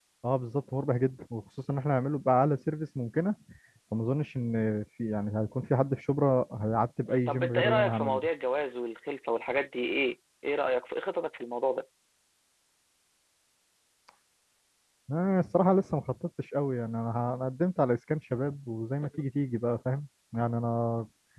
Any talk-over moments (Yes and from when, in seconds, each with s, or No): Yes, from 7.1 s